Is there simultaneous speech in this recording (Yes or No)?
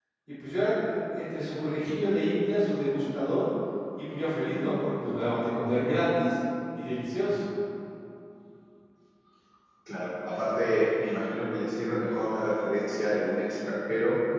No